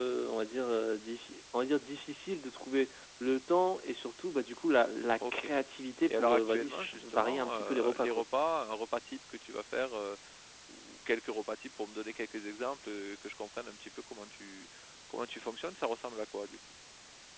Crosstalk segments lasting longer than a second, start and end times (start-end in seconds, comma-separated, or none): 6.1-8.2